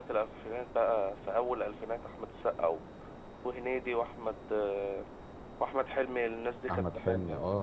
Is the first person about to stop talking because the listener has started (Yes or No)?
Yes